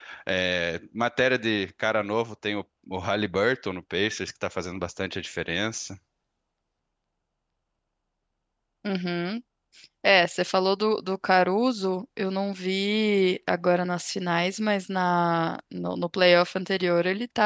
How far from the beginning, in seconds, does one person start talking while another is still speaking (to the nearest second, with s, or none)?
none